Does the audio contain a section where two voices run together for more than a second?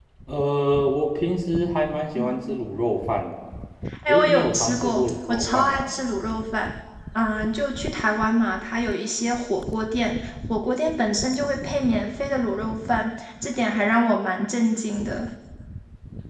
Yes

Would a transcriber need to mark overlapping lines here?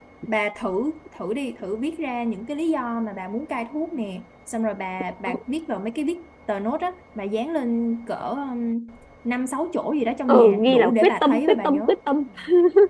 Yes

